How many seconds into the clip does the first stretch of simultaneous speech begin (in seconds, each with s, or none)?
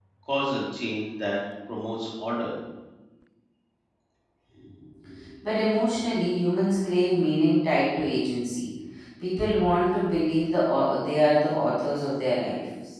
none